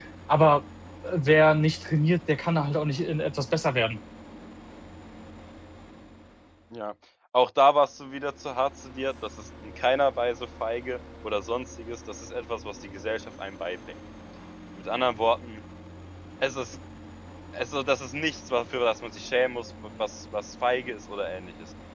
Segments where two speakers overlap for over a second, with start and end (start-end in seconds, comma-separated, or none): none